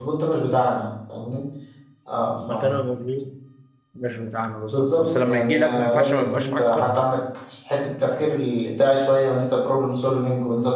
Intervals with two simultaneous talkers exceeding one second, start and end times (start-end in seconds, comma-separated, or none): 4.7-6.9